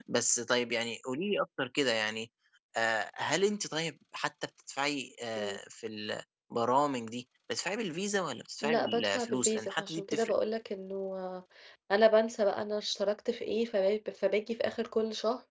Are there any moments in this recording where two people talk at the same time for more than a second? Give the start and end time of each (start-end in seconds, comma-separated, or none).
8.6-10.3